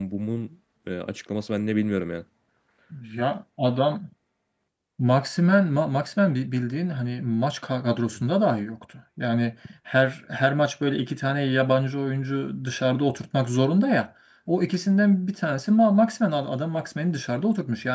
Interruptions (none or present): none